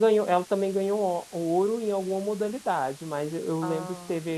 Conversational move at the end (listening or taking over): listening